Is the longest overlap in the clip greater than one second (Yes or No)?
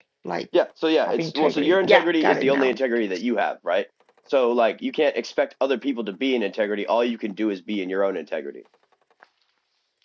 Yes